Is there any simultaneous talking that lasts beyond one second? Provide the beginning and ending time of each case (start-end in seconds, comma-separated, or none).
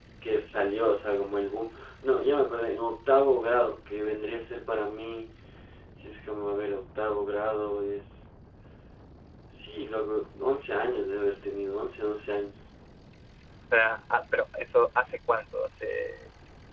none